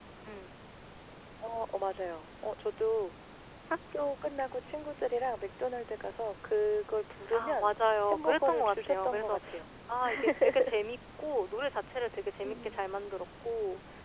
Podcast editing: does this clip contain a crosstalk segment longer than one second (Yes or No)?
Yes